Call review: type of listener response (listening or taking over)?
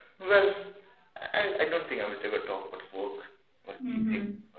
listening